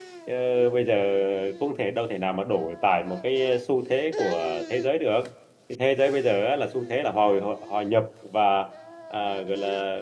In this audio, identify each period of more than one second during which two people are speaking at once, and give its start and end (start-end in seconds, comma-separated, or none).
none